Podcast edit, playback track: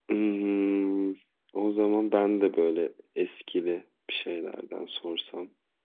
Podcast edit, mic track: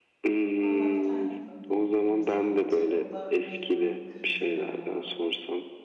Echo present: Yes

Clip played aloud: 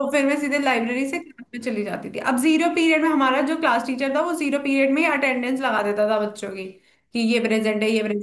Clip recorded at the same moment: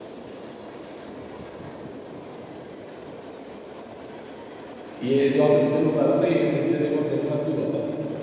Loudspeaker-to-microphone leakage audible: No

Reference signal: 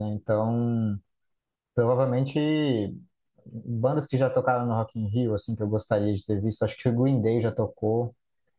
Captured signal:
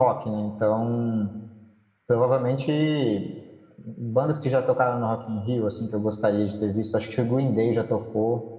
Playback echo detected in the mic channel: Yes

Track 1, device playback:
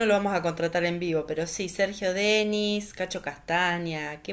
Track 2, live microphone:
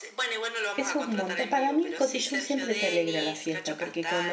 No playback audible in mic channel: No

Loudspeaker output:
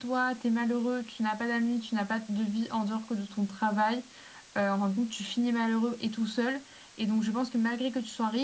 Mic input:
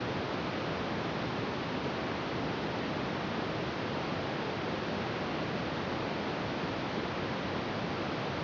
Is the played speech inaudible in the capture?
Yes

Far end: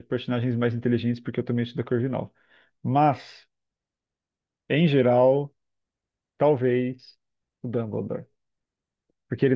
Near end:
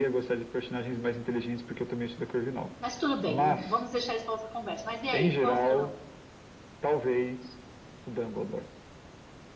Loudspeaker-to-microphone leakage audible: Yes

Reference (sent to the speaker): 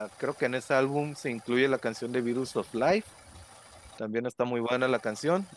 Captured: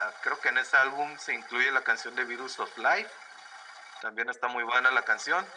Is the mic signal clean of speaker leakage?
No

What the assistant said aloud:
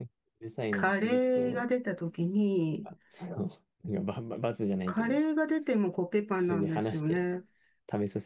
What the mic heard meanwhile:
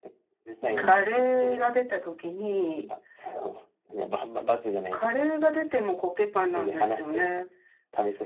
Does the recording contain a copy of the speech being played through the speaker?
Yes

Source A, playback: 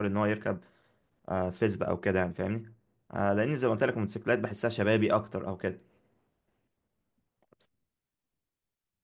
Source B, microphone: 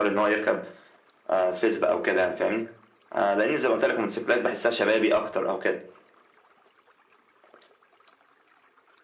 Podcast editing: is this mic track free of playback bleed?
No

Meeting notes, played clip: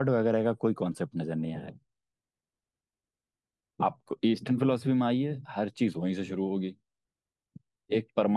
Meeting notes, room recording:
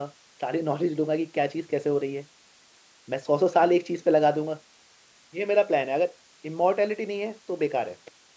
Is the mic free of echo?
Yes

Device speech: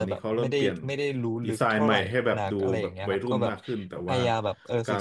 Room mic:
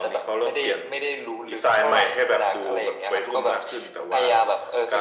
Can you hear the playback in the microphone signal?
Yes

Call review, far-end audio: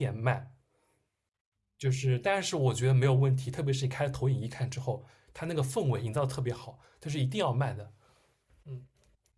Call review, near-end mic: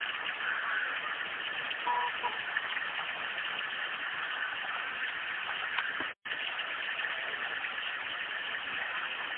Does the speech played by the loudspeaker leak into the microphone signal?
No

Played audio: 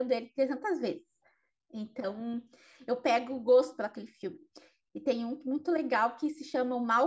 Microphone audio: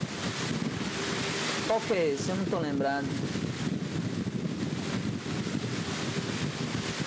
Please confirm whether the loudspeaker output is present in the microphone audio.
No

